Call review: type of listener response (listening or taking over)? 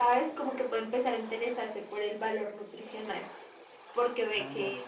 listening